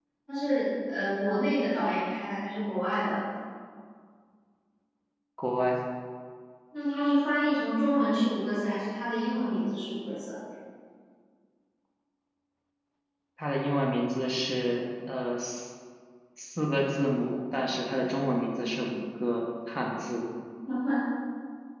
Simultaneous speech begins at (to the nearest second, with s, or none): none